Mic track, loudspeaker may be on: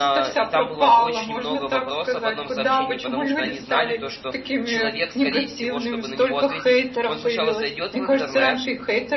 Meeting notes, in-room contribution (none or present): present